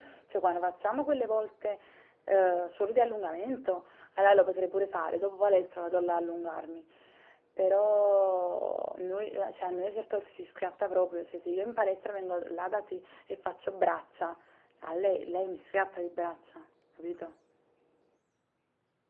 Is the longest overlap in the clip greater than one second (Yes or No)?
No